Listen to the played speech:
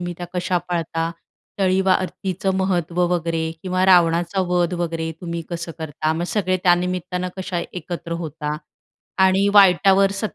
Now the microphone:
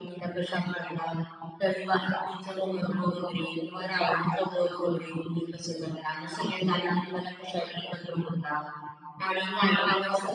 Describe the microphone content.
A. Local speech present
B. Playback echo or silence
B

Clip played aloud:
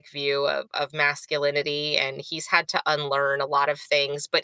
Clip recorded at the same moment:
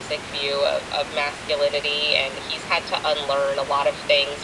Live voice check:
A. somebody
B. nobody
B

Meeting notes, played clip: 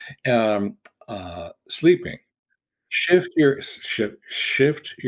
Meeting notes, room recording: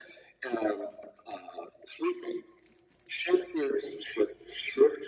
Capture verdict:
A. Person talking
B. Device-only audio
B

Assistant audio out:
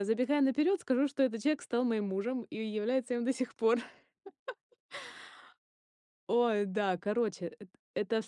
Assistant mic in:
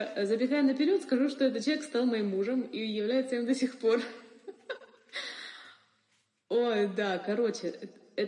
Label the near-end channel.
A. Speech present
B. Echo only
B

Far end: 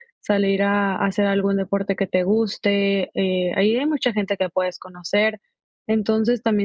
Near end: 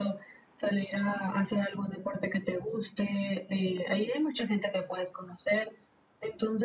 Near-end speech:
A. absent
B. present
A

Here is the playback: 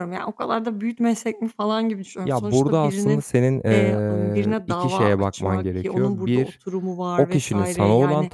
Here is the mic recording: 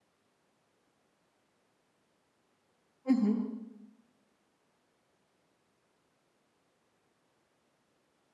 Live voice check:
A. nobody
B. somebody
B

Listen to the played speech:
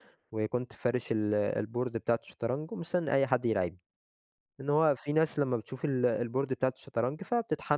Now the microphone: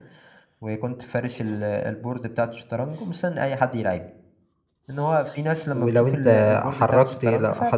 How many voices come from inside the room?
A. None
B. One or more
B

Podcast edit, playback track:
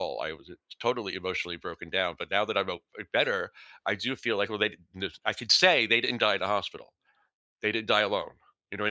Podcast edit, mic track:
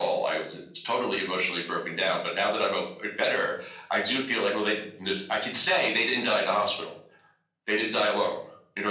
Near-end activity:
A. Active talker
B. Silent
B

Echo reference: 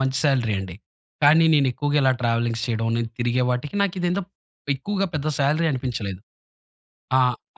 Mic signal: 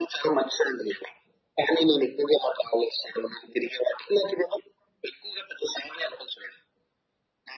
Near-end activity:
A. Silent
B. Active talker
A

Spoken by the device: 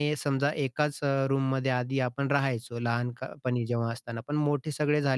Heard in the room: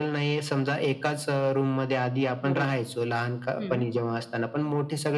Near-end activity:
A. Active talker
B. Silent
A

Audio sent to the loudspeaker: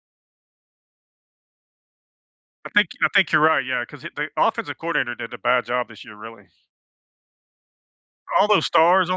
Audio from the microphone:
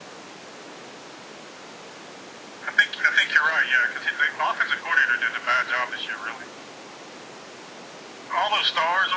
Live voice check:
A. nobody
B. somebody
A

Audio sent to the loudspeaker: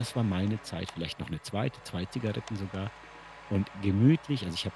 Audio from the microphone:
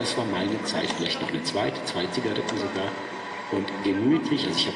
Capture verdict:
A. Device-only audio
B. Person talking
B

